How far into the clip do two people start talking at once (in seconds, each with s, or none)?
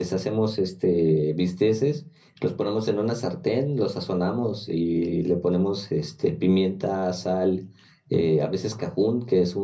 none